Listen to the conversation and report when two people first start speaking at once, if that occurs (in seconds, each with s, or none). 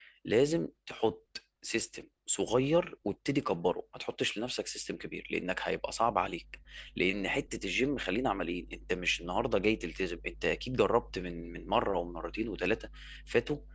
none